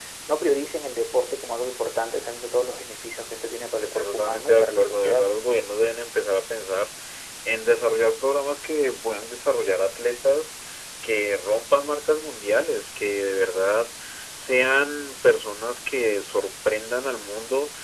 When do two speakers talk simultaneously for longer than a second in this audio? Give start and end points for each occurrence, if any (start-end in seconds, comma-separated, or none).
3.8-5.3